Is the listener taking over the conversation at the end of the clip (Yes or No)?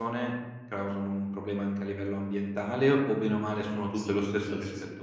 Yes